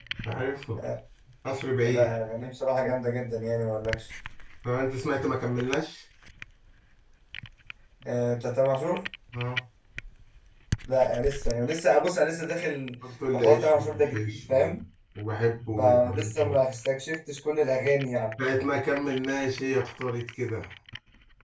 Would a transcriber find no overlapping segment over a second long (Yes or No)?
No